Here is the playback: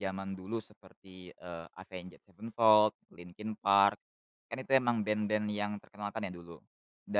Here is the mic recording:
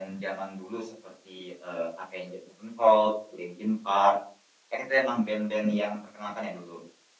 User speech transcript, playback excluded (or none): none